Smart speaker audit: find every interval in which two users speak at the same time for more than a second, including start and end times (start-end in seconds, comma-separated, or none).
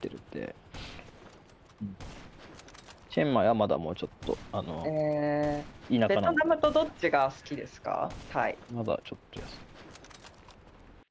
none